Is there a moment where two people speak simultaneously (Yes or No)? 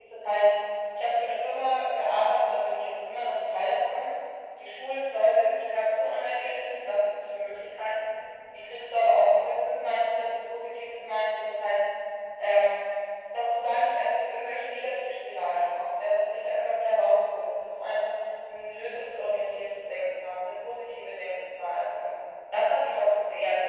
No